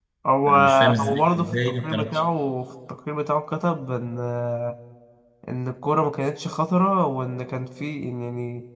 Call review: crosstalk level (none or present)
present